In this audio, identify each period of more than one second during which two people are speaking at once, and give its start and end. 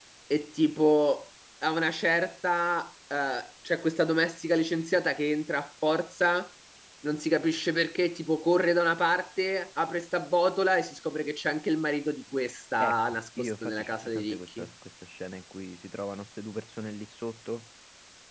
12.8-14.7

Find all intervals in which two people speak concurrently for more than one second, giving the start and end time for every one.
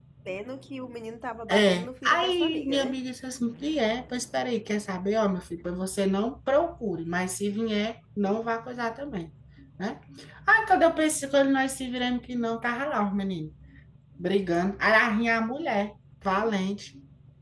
1.5-3.0

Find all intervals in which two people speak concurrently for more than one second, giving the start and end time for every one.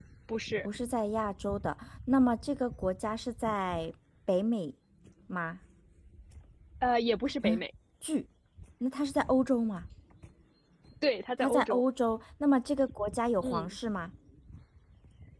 none

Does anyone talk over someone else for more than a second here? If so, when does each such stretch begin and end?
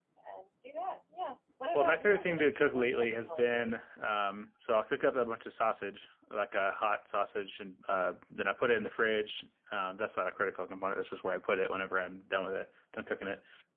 1.7-3.8

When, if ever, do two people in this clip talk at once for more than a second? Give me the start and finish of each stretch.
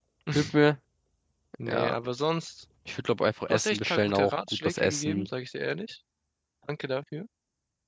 3.5-5.3

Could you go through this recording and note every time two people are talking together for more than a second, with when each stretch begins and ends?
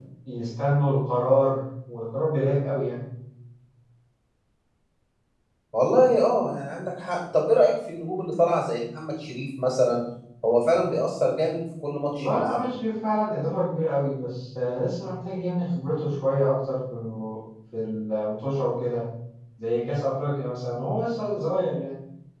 none

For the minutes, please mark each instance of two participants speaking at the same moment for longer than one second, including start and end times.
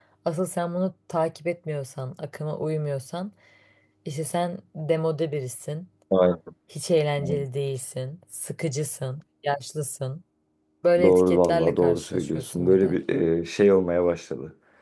11.0-13.0

